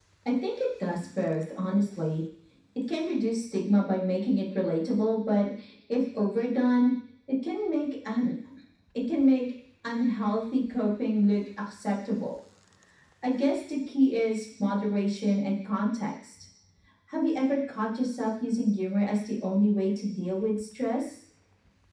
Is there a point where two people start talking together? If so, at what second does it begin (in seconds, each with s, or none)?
none